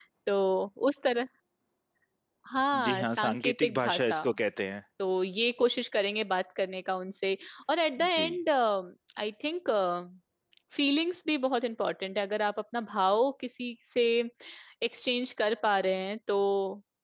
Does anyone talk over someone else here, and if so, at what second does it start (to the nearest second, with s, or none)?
3 s